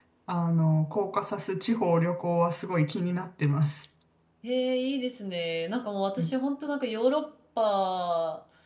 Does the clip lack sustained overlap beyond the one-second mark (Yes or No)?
Yes